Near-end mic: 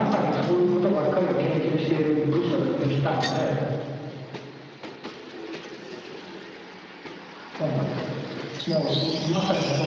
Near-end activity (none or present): present